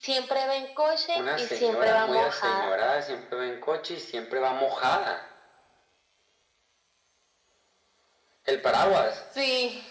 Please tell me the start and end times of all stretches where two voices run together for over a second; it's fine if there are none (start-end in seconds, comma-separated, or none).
1.2-2.7